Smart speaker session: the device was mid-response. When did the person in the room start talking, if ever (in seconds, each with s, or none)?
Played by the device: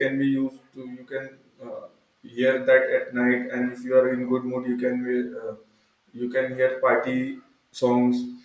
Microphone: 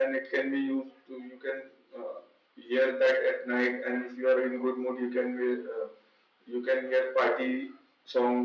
none